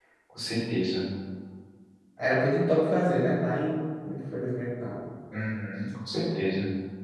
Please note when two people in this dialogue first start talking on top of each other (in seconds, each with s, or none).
none